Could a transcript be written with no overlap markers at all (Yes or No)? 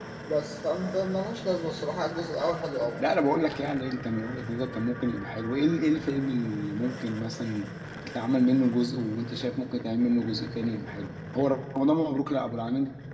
Yes